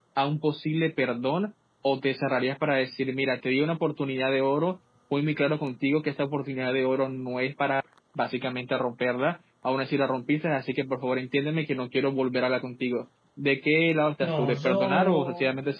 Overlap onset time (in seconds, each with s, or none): 14.2 s